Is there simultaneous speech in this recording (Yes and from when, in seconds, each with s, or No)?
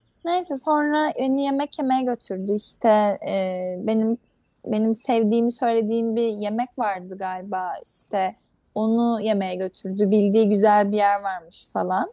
No